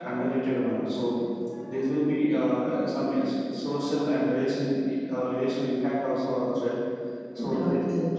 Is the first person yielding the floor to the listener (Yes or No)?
No